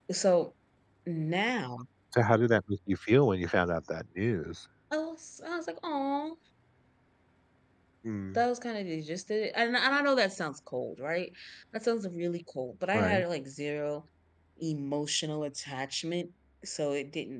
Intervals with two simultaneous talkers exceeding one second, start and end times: none

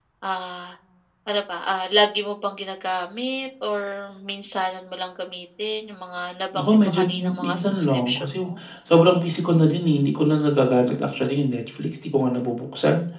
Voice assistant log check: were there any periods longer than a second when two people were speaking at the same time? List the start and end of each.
6.5-8.4

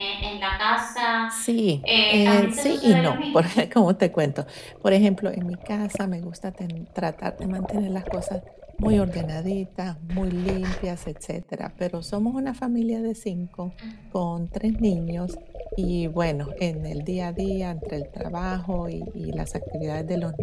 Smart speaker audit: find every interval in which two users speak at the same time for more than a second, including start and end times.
1.9-3.3

